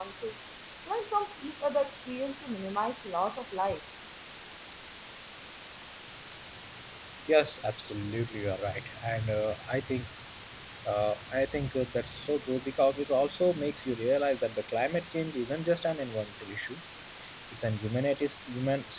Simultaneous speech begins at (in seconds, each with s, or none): none